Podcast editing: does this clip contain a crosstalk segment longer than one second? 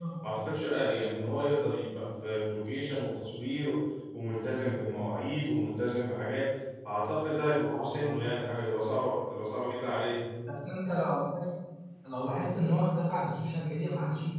No

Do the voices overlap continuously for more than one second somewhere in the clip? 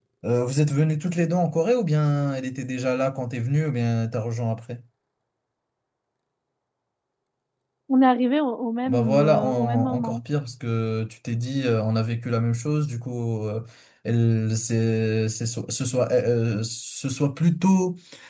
Yes, from 8.9 s

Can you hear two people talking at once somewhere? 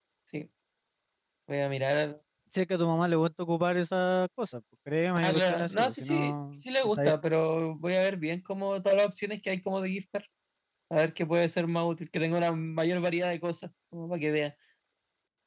Yes, from 5.2 s

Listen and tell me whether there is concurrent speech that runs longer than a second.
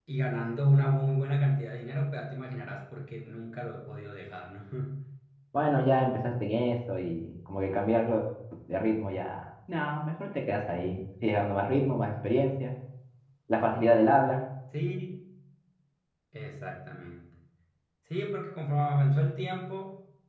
No

